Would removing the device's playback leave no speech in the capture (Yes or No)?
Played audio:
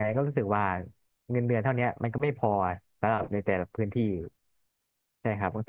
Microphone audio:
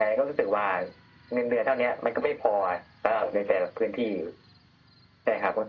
Yes